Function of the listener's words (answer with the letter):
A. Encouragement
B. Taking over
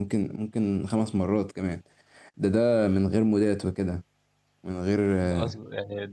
B